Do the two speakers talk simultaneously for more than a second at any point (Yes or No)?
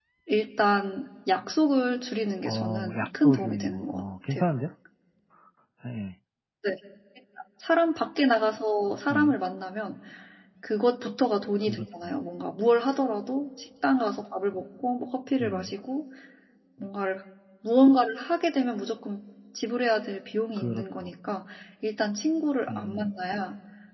Yes